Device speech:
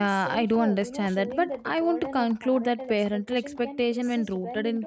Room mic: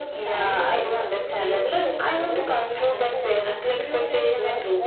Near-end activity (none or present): present